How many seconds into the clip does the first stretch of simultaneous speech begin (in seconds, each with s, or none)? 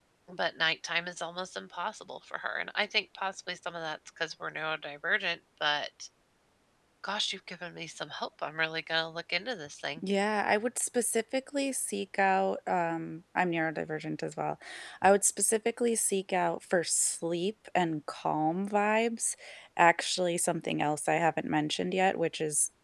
none